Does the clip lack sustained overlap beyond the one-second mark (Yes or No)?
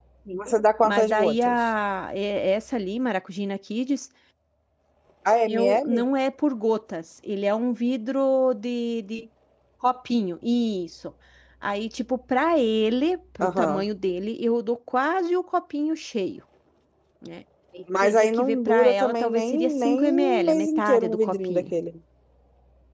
No